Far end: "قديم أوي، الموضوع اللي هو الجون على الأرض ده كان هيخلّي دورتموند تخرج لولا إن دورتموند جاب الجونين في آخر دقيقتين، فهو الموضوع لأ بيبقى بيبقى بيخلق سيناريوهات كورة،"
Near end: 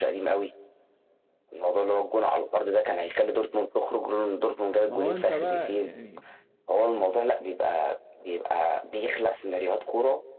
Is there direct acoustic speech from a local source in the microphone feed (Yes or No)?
Yes